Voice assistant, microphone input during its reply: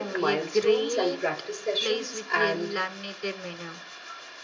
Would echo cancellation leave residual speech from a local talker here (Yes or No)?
Yes